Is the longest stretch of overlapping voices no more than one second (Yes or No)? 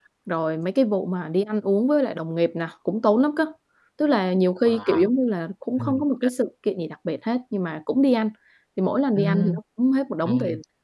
Yes